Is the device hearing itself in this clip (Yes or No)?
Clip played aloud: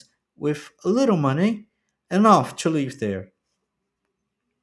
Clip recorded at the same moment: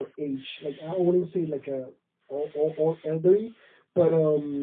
No